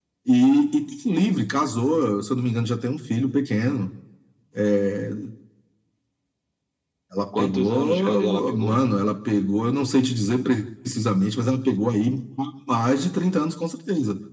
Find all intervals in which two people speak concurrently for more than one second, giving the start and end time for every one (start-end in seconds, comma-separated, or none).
7.4-8.8